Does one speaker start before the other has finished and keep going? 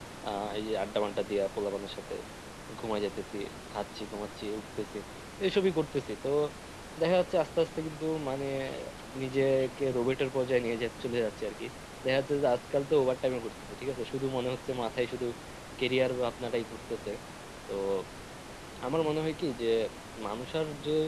No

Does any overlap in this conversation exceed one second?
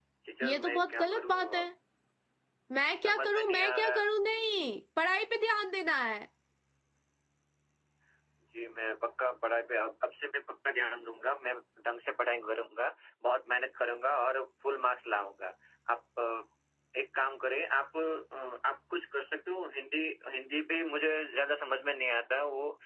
Yes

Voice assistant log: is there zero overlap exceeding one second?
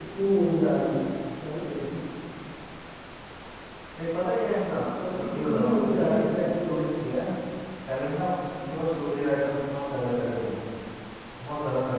No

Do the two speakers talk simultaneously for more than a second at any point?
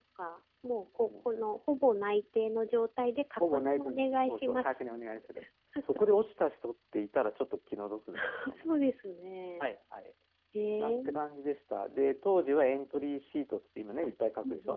Yes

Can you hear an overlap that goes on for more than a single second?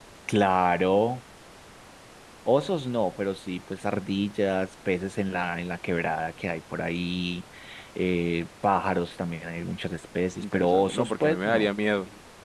Yes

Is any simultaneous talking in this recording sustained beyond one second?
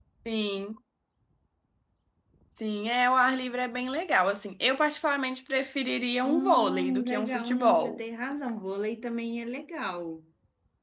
Yes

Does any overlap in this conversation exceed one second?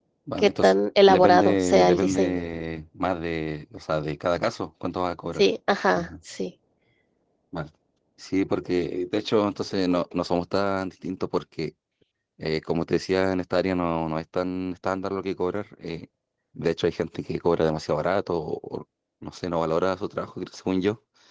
Yes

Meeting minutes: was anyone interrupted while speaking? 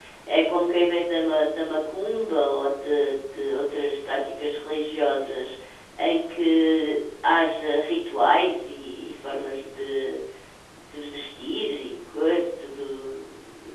No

